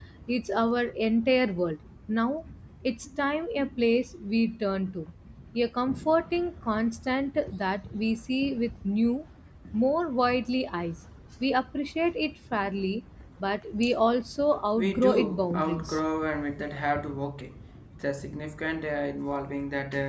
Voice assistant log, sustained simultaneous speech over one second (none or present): present